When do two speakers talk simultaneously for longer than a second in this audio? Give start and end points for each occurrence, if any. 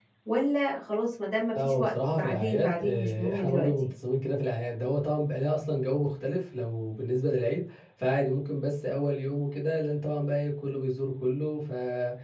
1.5-3.7

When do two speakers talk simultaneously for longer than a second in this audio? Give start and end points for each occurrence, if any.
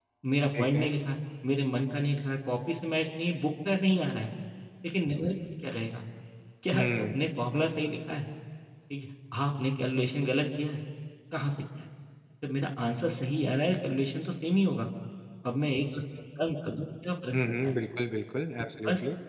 none

